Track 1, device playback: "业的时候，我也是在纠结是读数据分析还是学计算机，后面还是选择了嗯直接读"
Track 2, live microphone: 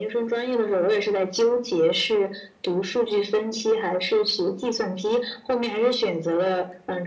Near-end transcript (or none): none